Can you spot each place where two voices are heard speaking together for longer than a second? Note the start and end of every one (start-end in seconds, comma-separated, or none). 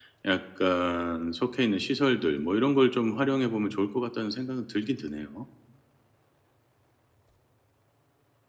none